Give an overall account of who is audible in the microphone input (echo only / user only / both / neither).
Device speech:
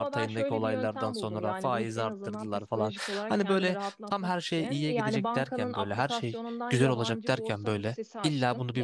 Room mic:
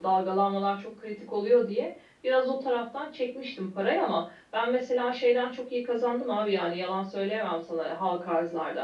user only